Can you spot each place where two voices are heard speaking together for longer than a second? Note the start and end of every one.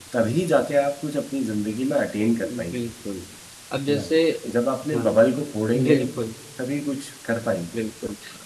none

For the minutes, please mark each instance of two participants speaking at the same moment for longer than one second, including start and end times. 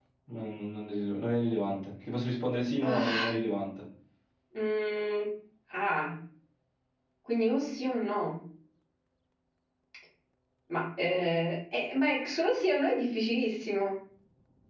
none

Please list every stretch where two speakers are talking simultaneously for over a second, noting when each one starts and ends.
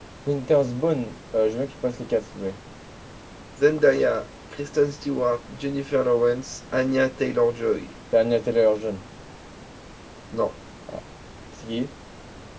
none

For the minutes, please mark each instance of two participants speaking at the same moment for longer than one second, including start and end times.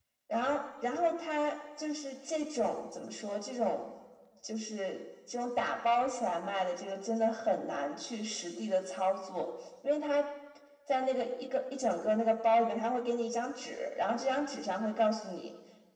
none

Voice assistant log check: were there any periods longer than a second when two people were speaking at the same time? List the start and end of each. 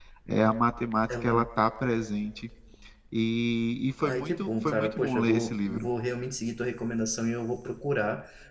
4.0-5.9

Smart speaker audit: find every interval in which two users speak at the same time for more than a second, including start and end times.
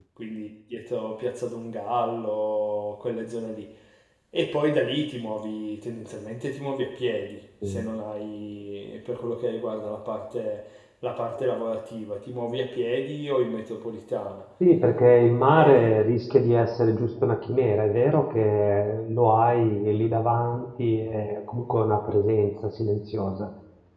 none

